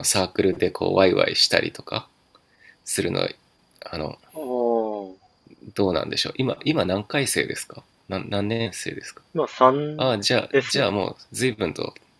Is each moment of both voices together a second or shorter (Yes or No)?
Yes